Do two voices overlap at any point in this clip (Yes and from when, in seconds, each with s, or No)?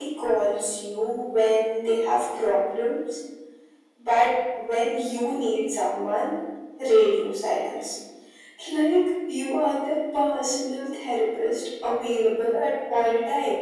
No